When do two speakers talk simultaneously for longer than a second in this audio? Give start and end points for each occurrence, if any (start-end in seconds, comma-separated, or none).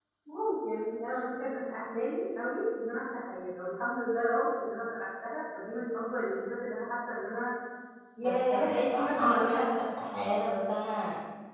8.2-9.7